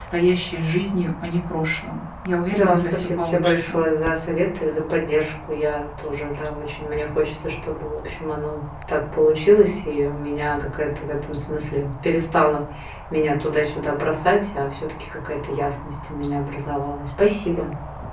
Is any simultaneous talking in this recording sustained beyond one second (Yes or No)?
Yes